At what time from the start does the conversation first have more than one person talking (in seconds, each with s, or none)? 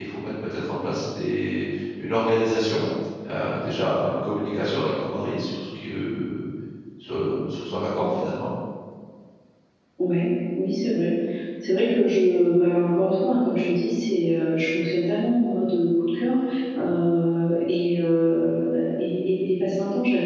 none